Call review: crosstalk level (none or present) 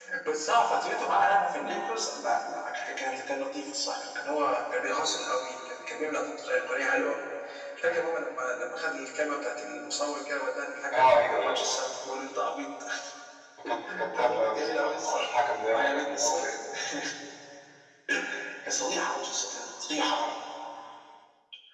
present